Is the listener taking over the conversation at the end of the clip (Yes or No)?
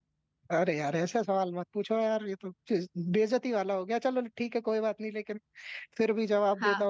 Yes